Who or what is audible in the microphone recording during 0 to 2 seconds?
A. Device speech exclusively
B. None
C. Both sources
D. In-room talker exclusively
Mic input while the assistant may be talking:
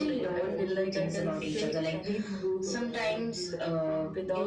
C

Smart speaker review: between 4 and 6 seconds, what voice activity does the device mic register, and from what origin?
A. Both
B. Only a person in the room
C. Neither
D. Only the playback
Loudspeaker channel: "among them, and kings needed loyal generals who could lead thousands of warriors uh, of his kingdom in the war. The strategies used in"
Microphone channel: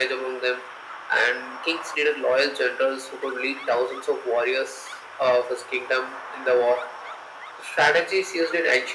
D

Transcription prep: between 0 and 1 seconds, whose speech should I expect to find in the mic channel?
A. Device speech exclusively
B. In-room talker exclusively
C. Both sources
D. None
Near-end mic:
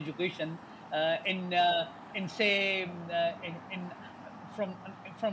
A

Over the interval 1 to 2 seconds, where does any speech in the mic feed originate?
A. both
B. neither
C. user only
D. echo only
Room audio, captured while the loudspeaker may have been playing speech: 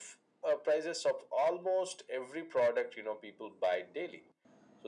D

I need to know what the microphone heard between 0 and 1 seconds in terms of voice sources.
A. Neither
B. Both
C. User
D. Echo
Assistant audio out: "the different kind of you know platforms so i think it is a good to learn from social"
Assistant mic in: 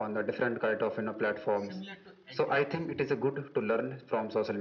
D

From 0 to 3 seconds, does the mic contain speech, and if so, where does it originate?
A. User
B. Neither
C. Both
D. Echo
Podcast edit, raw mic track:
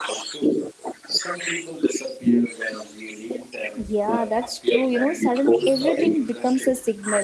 D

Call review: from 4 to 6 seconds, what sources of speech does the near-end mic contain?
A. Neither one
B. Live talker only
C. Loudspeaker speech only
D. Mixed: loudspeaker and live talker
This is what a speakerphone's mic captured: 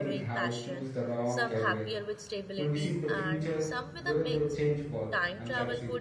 D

